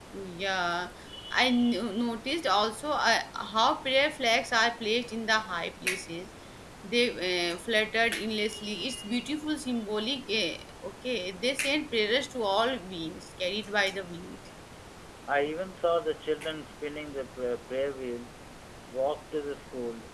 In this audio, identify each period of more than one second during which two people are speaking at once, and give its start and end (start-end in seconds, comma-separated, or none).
none